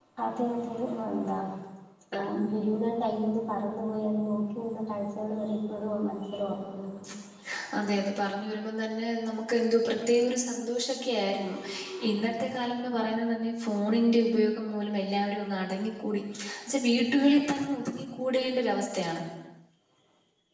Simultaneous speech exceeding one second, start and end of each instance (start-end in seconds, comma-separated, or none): none